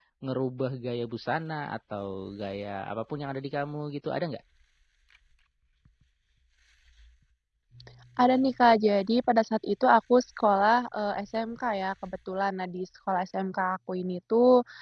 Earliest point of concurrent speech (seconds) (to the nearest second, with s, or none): none